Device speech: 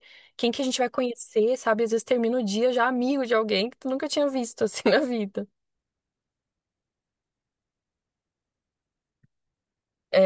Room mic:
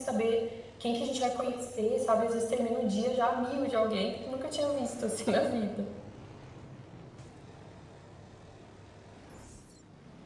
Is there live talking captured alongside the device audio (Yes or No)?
No